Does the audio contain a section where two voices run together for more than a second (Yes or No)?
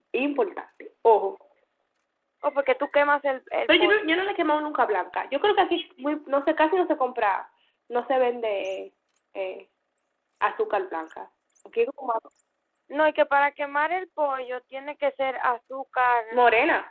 No